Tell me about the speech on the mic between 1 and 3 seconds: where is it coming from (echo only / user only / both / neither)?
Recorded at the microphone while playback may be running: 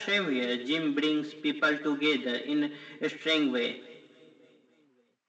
echo only